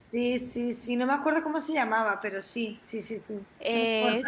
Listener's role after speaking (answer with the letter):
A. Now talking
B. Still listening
A